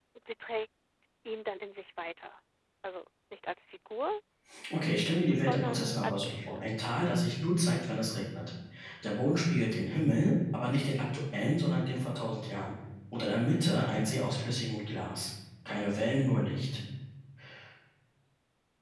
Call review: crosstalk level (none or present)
present